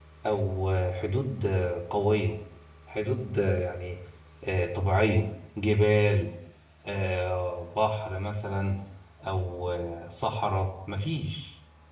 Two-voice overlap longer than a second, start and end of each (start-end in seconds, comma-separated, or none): none